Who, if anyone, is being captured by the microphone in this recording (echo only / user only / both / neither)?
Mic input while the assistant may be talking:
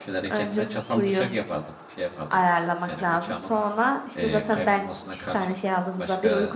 both